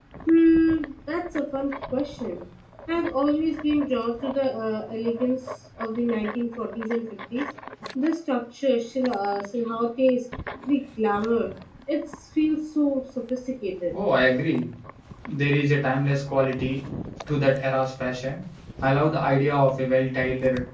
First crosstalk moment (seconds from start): none

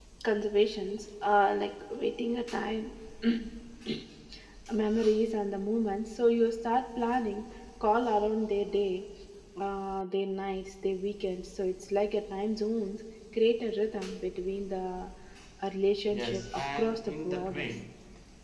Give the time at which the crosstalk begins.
16.1 s

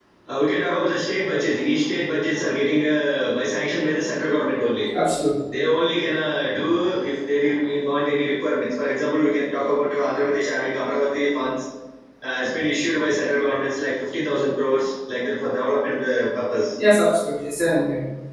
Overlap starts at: none

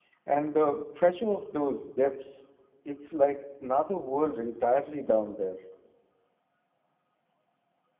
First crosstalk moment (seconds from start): none

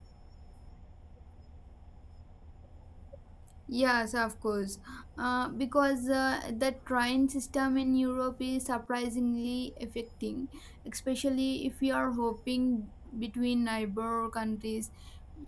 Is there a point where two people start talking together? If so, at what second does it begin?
none

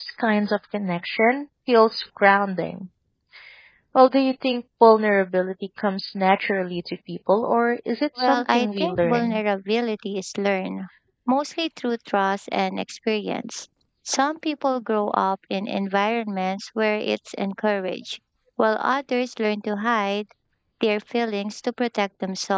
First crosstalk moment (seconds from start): 8.2 s

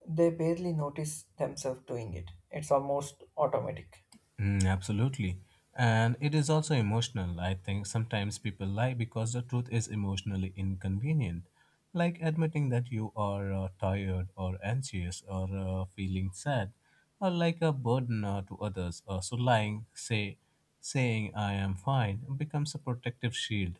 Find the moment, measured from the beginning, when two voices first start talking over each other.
none

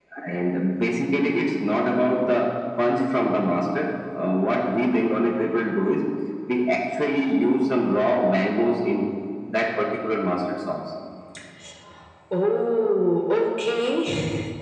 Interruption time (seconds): none

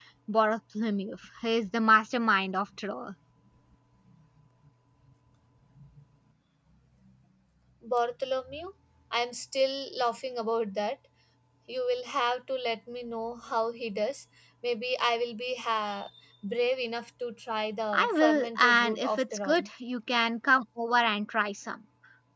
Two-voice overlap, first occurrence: 17.9 s

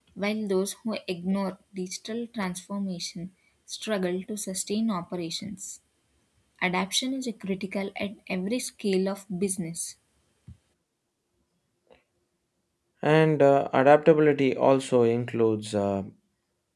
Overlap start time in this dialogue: none

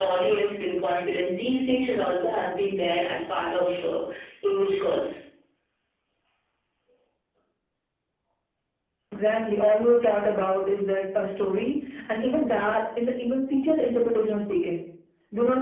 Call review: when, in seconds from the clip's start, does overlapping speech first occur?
none

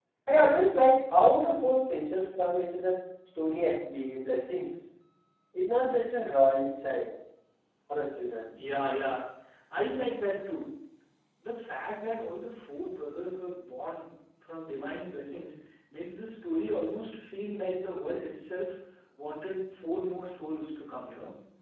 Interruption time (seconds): none

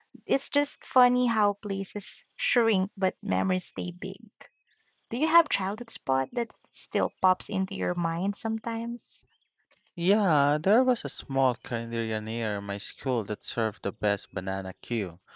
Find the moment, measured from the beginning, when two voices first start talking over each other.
none

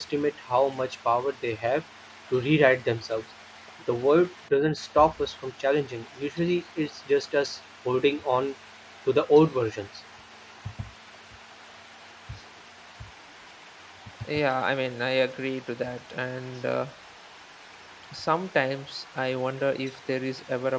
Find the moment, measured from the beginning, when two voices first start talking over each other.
none

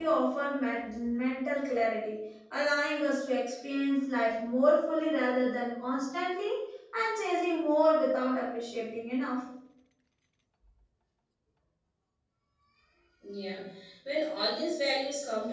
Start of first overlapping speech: none

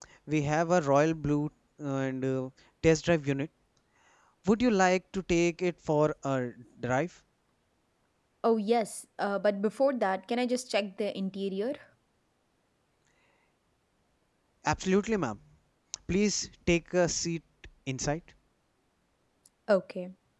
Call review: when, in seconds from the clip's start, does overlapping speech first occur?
none

